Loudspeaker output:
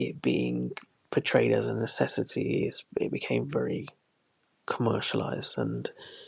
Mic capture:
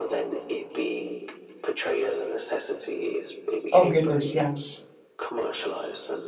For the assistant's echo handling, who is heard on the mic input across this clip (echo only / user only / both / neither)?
both